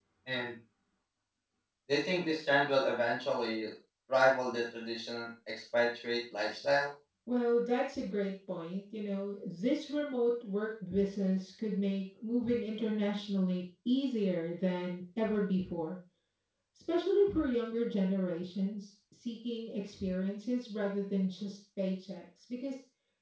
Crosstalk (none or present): none